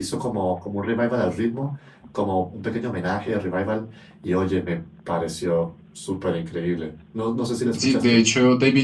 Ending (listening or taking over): taking over